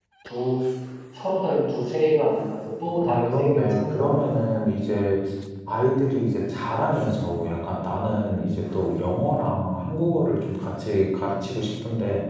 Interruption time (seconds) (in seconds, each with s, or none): 3.0 s